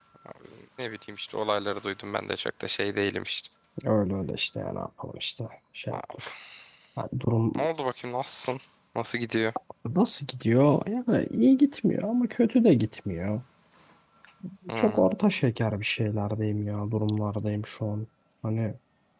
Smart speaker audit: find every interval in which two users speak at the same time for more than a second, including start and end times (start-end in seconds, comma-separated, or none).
none